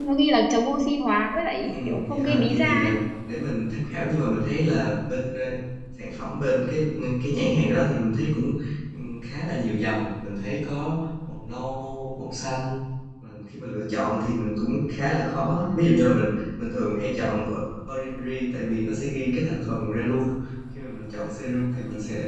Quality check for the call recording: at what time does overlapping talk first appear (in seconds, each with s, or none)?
1.7 s